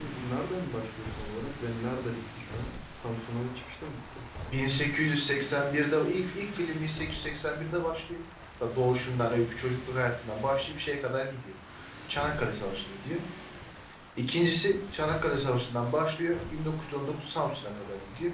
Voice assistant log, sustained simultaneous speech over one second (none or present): none